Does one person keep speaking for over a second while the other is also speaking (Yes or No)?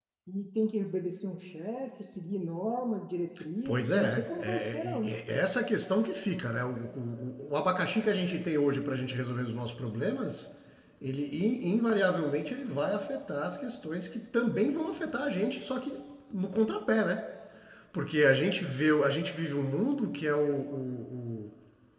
Yes